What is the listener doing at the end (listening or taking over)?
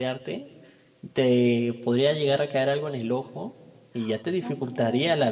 listening